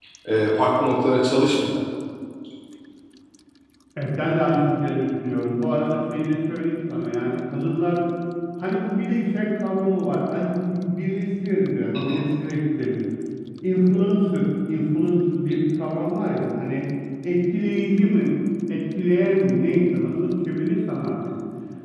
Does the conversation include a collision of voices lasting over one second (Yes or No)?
No